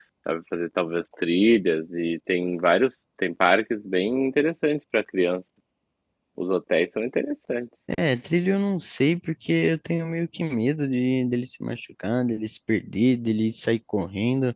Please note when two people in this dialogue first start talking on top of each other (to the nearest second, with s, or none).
none